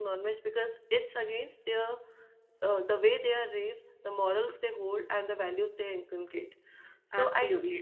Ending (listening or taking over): taking over